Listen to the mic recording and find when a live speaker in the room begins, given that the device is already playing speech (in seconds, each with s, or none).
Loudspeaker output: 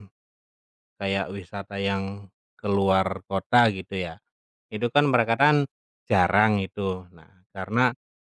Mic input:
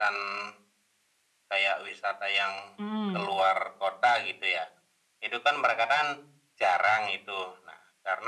2.8 s